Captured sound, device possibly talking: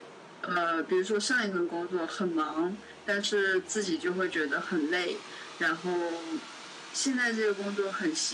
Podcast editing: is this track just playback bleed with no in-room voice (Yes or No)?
Yes